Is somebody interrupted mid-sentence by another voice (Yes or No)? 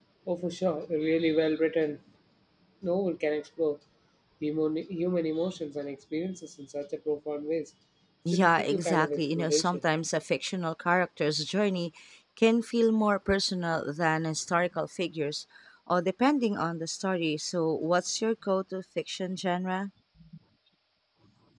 Yes